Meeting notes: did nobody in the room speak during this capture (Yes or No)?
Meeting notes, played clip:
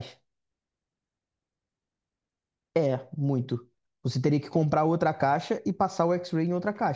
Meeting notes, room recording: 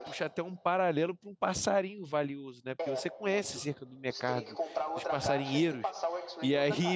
No